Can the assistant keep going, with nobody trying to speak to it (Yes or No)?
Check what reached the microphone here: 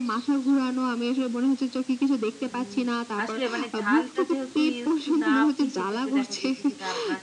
No